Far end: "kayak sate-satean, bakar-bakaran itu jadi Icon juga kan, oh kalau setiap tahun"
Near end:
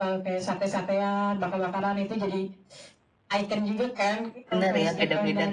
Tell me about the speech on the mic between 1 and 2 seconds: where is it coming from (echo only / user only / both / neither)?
echo only